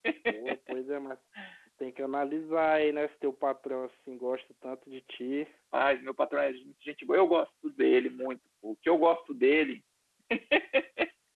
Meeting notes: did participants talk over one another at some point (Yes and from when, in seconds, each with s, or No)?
No